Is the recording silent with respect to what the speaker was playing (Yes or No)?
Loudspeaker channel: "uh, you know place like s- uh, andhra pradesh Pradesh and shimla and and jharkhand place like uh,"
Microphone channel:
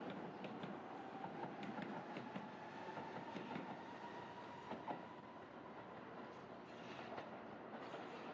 Yes